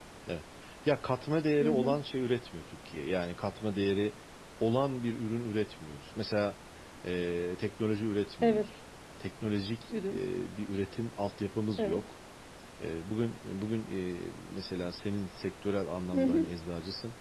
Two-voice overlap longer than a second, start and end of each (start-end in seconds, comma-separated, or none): none